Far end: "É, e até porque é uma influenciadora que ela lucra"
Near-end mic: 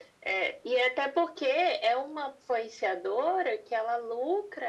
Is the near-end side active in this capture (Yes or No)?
No